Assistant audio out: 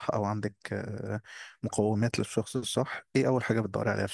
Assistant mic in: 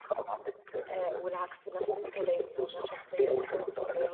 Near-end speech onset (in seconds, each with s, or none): 0.9 s